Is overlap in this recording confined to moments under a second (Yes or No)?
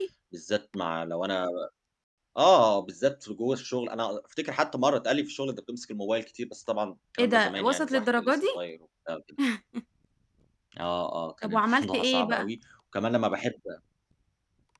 No